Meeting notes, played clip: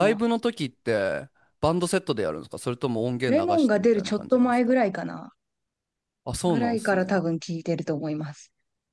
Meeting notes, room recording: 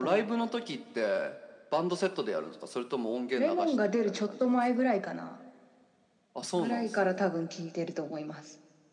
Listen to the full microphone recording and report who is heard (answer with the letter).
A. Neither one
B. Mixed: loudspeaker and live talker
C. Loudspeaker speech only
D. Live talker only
C